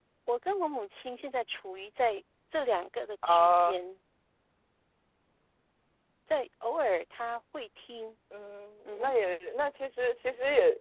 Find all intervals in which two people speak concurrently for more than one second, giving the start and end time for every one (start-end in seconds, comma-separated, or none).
none